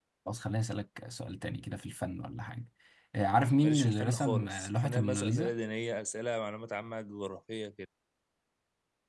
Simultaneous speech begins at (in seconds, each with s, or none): 3.6 s